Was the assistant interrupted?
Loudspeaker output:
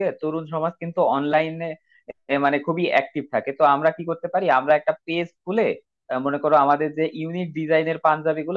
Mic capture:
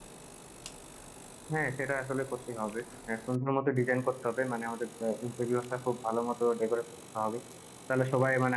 Yes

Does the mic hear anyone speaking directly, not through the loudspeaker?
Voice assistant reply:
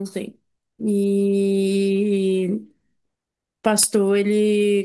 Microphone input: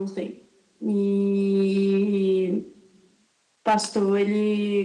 No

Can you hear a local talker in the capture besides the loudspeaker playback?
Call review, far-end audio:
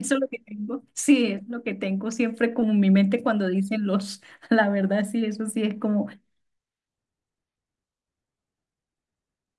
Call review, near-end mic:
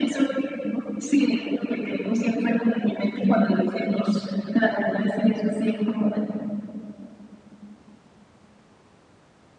No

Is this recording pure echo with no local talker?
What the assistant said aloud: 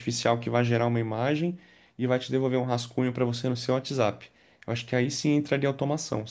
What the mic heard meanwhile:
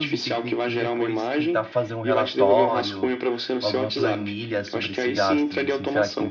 No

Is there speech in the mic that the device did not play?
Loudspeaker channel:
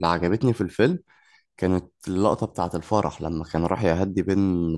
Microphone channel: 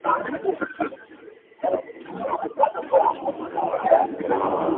Yes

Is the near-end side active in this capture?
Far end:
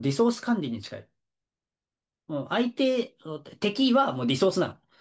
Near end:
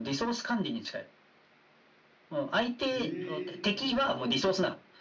Yes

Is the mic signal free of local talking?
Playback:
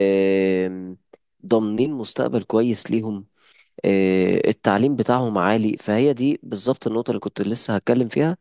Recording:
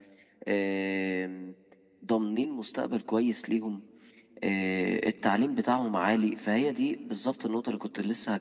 Yes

